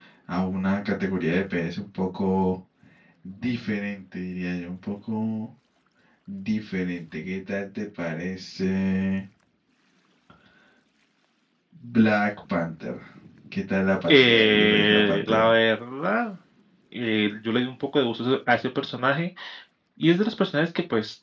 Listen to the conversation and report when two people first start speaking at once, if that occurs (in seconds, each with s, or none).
14.1 s